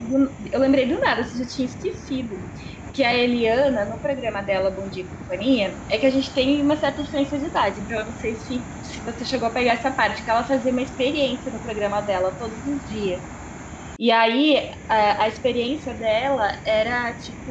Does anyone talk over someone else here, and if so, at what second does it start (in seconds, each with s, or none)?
none